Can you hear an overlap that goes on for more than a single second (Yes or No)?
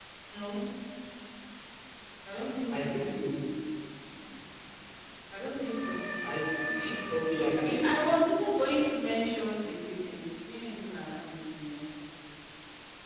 No